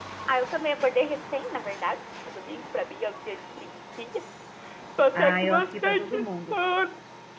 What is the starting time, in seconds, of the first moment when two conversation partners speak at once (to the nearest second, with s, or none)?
5 s